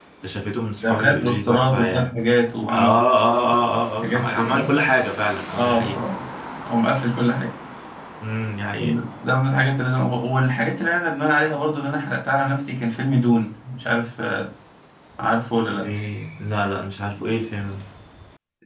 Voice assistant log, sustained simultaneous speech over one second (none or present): present